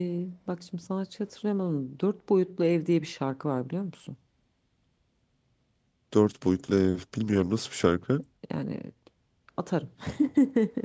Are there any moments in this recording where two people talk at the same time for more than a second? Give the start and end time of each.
none

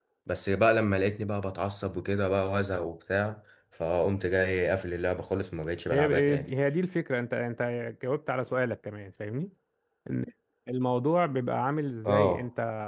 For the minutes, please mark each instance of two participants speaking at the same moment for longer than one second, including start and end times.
none

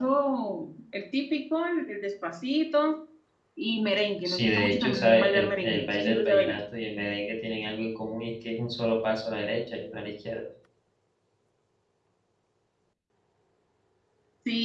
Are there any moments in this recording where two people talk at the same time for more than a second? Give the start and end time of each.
4.2-6.6

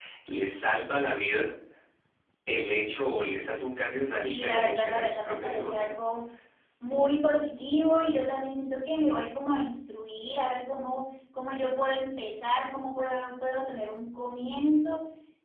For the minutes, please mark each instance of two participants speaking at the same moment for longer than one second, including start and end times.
4.2-5.9

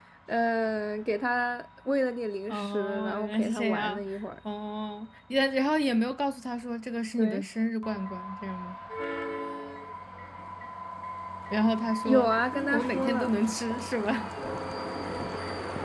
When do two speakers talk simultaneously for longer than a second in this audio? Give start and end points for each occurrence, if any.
2.5-4.0, 12.0-13.3

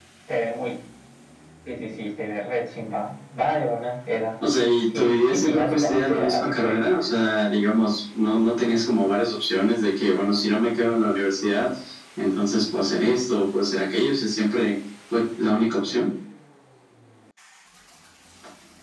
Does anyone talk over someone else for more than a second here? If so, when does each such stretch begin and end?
4.9-6.8

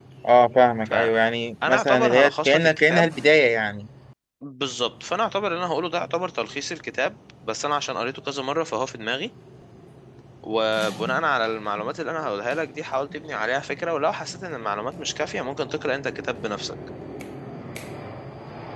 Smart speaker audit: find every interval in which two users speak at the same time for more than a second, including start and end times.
1.8-3.1

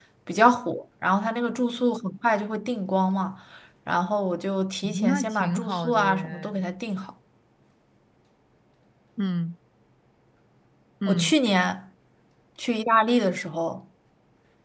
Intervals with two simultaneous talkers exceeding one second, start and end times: 4.8-6.6

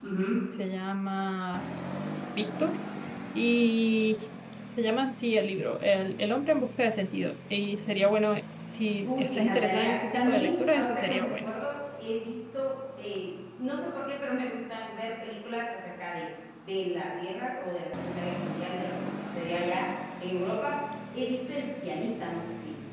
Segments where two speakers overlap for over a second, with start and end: 9.0-11.5

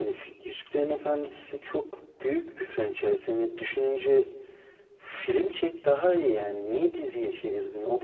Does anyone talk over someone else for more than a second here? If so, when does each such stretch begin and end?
none

